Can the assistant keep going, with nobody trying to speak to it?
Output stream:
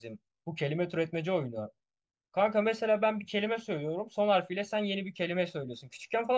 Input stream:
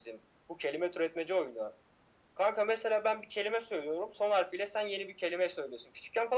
Yes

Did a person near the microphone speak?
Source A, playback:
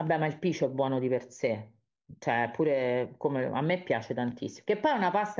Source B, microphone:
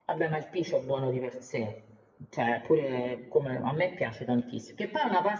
No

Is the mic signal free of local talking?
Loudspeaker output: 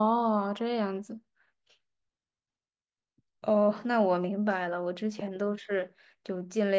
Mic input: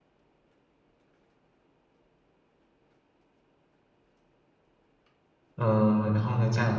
No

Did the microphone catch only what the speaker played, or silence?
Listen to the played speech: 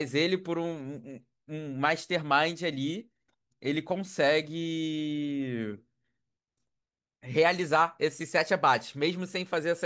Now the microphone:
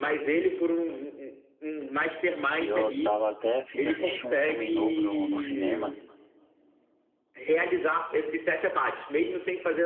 No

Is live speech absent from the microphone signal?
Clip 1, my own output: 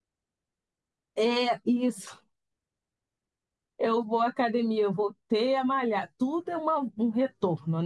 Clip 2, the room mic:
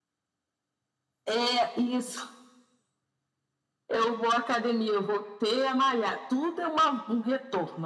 Yes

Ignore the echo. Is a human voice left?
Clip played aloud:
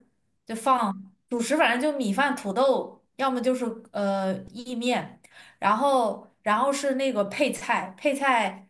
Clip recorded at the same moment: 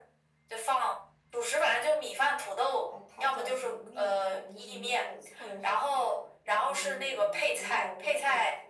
Yes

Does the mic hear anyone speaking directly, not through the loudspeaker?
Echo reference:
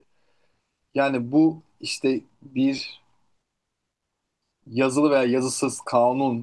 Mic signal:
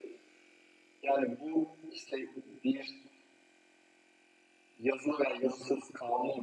No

